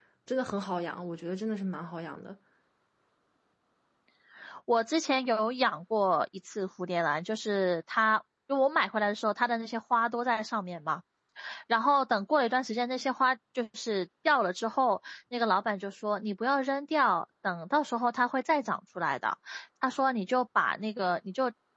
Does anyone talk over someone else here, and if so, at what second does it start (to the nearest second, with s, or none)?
none